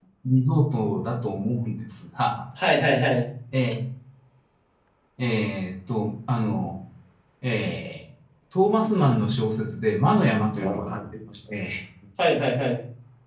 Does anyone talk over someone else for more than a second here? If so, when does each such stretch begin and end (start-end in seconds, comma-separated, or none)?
none